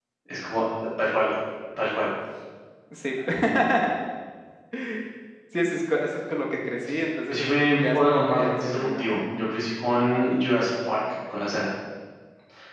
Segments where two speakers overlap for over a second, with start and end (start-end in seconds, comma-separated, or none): 7.3-9.1